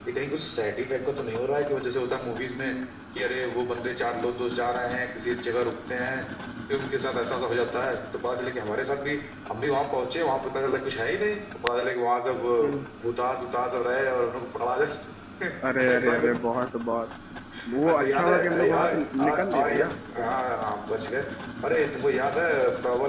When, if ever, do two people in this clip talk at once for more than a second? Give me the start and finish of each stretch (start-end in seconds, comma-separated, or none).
17.9-19.8